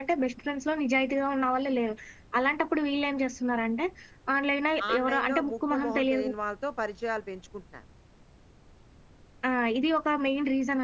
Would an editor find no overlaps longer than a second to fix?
No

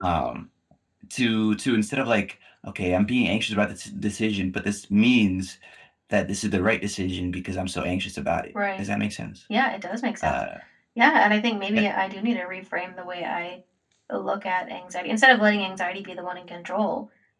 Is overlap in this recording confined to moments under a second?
Yes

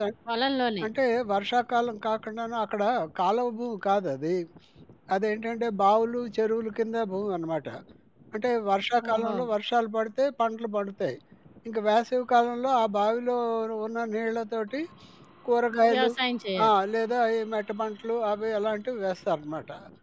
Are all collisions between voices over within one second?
Yes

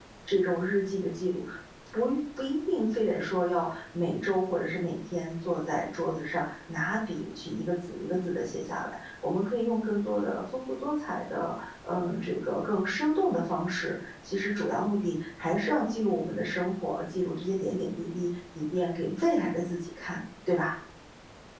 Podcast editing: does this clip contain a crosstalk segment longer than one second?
No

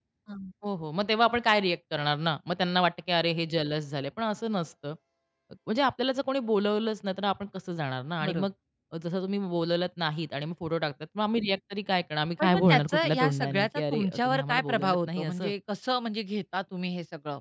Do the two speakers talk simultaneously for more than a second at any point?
Yes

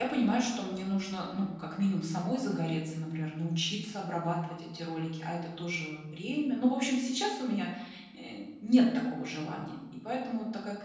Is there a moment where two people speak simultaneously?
No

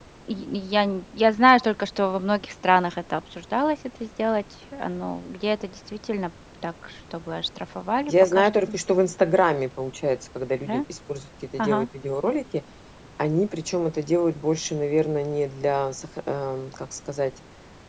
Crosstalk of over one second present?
No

